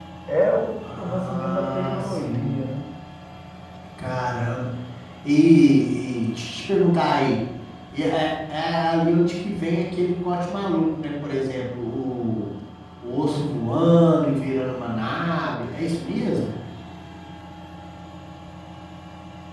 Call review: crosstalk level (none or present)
present